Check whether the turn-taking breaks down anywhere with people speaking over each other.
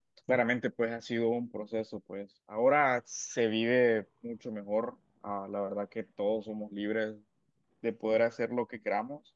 No

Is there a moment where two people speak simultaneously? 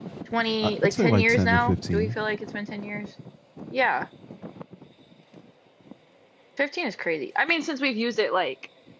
Yes, from 0.6 s

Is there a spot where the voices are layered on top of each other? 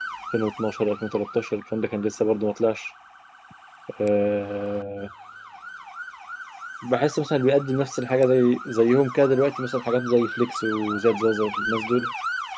No

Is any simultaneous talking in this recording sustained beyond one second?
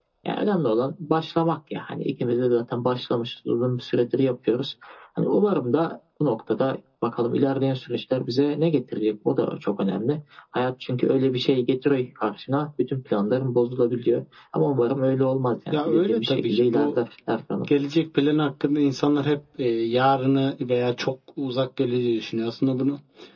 Yes, from 15.7 s

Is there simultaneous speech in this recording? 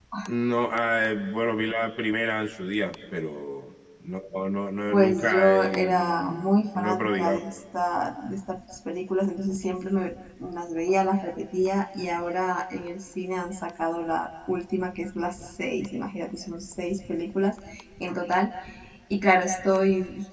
Yes, from 4.9 s

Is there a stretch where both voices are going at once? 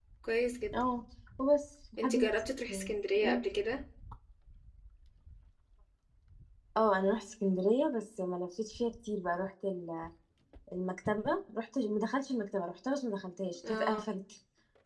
Yes, from 2.0 s

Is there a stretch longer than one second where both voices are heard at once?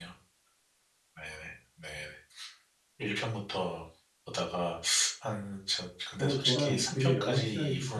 Yes, from 6.2 s

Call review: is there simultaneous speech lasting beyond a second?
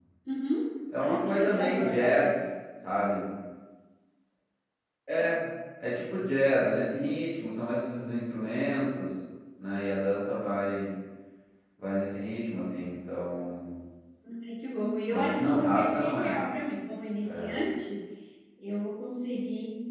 Yes, from 1.0 s

